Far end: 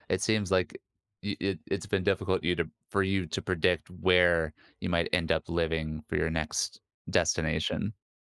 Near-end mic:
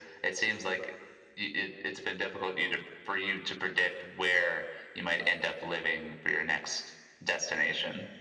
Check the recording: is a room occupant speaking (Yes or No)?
No